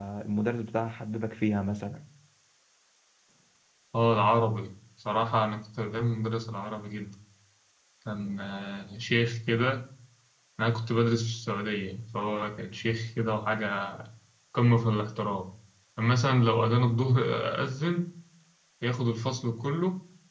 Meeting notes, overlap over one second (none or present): none